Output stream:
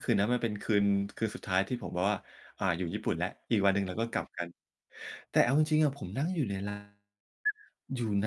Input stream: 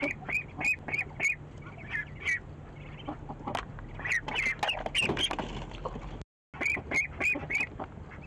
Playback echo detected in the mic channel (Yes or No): No